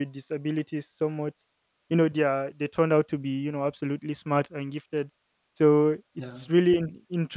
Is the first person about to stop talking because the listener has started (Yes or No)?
No